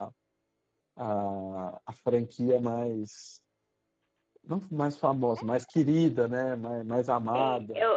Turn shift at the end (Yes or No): Yes